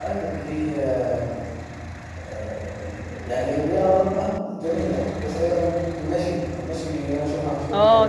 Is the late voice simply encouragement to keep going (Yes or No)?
No